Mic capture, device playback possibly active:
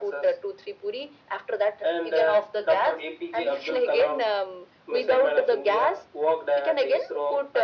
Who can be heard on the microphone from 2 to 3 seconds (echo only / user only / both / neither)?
echo only